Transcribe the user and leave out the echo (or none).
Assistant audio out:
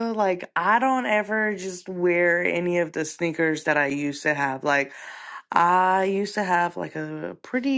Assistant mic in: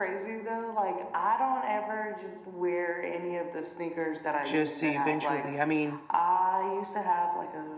just to eventually? I mean,